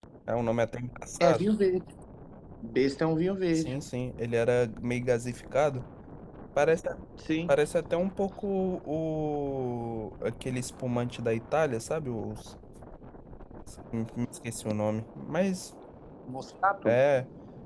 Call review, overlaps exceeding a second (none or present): none